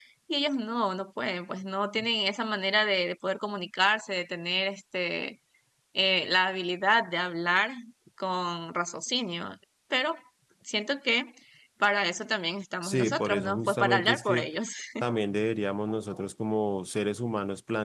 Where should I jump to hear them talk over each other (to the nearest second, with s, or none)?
13 s